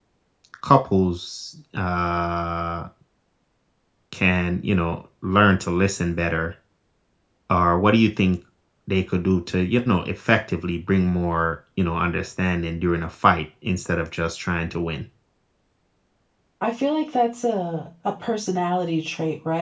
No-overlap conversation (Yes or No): Yes